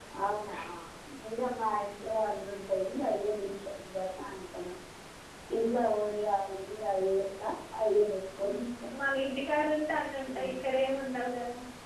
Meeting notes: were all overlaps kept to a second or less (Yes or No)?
Yes